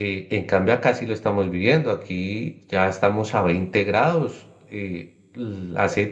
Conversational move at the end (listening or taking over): listening